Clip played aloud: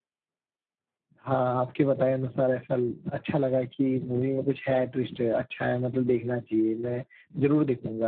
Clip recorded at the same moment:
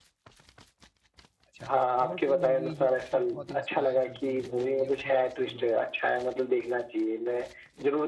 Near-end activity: present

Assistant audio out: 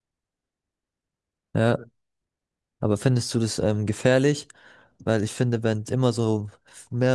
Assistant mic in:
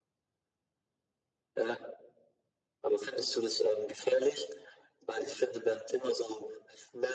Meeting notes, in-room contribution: none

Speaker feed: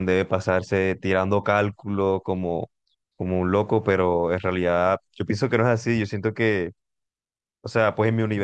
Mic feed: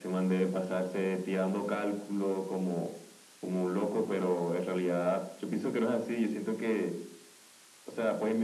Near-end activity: none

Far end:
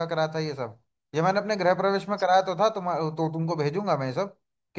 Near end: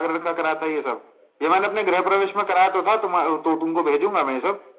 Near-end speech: none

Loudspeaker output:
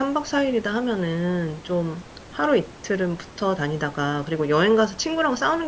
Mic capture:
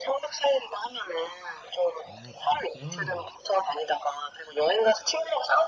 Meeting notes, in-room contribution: present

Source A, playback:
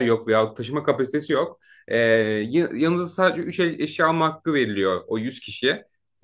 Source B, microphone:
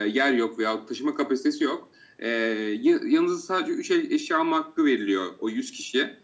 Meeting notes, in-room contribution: none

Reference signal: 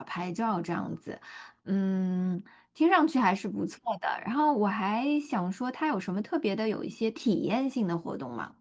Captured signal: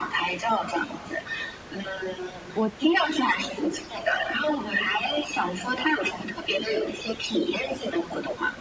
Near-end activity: present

